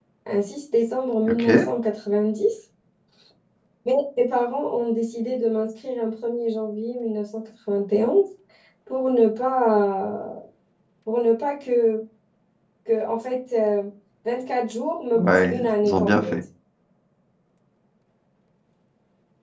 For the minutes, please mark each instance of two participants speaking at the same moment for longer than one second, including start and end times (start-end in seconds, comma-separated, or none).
15.2-16.4